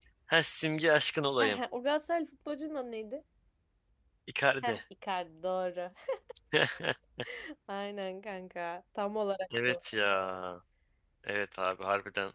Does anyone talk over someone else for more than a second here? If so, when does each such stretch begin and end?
none

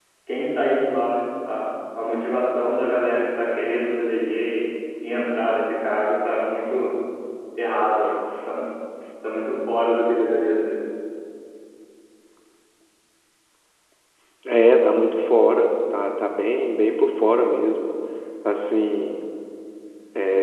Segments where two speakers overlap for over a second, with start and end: none

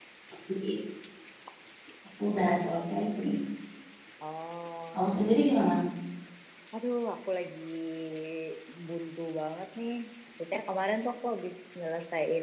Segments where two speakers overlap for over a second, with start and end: none

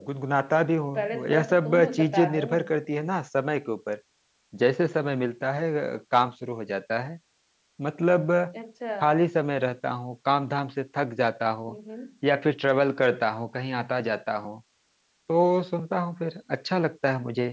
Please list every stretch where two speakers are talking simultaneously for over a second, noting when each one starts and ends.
0.9-2.6

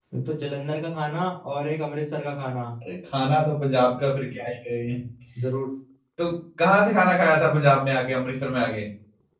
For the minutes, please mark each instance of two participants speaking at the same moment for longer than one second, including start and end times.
none

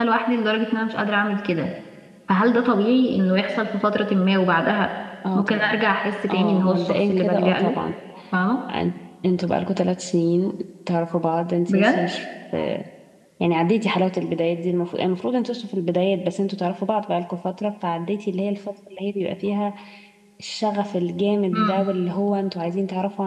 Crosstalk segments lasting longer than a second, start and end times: 6.3-7.7

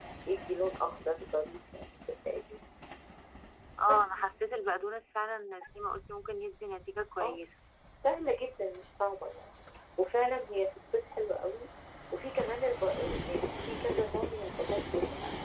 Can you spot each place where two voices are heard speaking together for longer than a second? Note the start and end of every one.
none

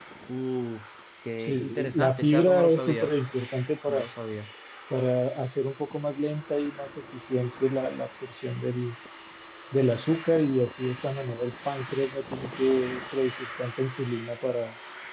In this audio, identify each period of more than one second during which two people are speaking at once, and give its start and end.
1.4-3.1

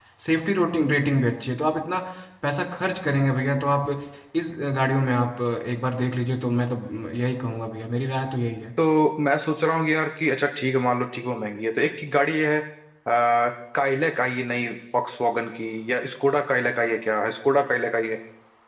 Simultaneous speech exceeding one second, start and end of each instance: none

